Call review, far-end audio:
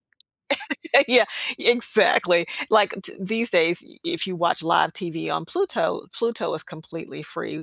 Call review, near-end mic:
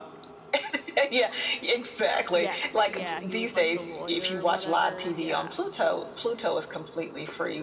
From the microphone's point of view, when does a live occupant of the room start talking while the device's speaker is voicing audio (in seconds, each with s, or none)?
2.3 s